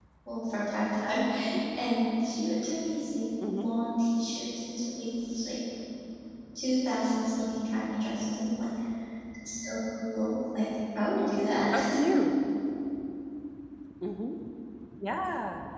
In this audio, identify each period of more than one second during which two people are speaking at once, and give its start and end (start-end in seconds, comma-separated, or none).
none